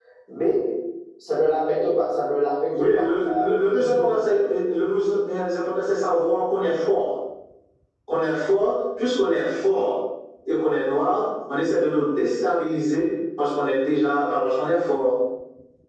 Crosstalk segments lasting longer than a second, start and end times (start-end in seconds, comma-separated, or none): 2.8-4.1